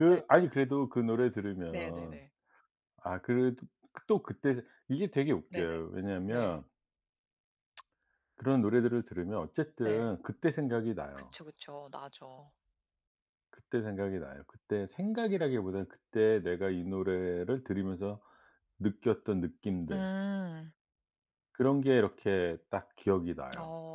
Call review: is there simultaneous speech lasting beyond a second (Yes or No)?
No